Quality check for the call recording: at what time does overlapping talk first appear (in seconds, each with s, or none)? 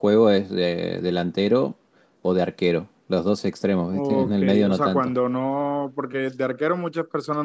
3.9 s